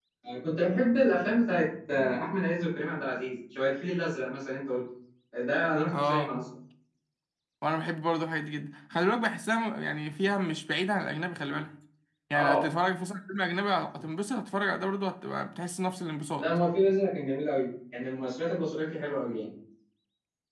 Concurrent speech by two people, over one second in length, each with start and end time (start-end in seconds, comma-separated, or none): none